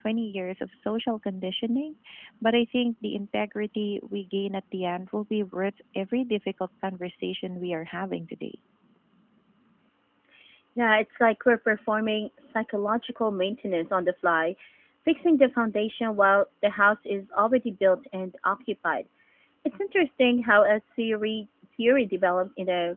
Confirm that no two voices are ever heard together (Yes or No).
Yes